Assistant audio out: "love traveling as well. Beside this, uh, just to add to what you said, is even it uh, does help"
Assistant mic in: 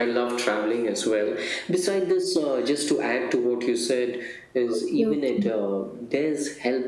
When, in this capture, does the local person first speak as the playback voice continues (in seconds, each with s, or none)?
4.7 s